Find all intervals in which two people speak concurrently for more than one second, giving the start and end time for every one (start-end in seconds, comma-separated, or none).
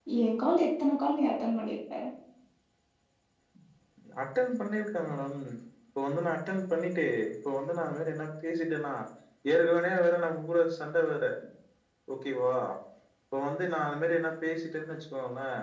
none